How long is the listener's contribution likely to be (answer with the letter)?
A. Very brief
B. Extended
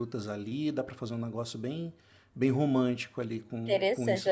B